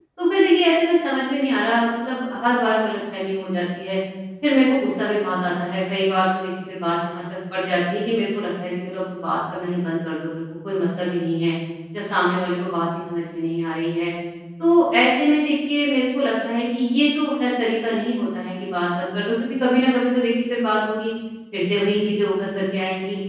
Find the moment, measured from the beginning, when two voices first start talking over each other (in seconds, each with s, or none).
none